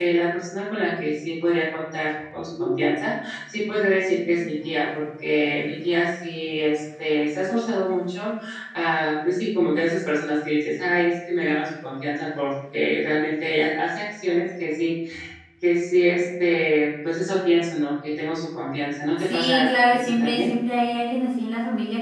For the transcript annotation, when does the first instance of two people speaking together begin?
19.3 s

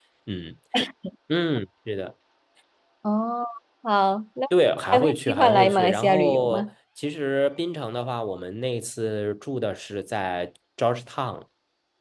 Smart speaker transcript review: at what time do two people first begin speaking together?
4.9 s

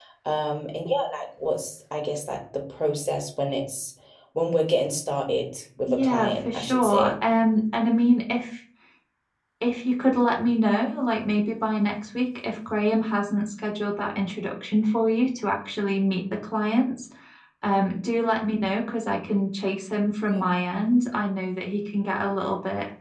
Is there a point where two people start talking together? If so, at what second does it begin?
5.9 s

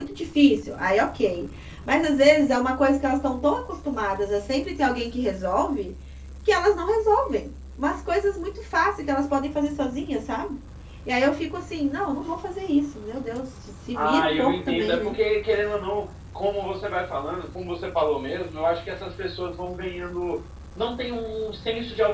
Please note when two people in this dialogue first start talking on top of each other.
13.9 s

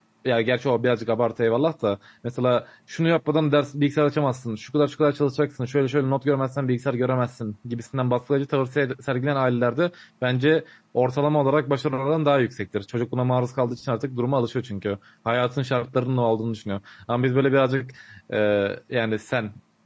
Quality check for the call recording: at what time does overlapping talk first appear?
none

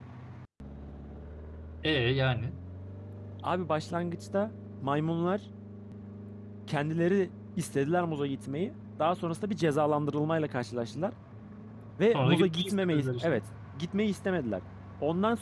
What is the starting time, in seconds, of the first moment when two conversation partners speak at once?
12.1 s

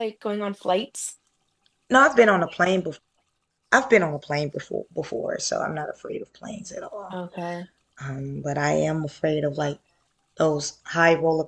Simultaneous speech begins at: none

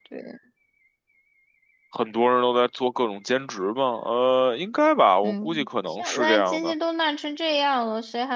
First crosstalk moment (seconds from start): 5.2 s

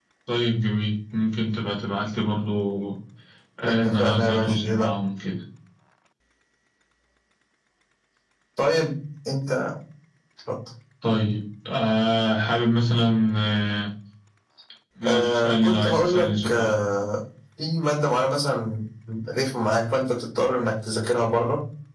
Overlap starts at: 3.7 s

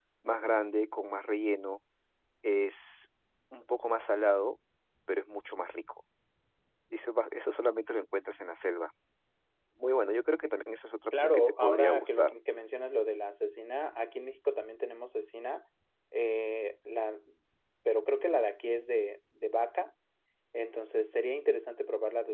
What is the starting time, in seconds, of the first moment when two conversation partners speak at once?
11.1 s

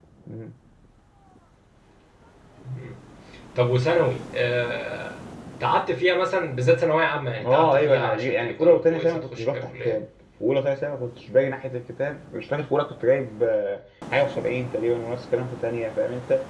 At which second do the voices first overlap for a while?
7.4 s

